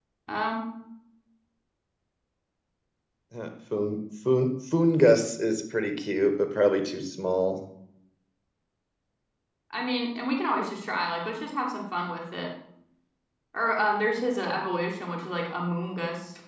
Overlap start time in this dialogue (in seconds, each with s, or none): none